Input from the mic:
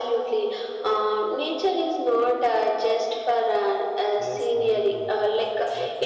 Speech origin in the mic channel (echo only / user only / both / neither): both